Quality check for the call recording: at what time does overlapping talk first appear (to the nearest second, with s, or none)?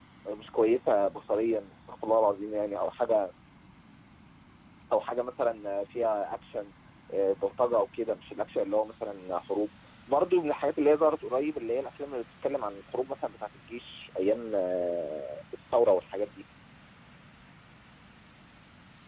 none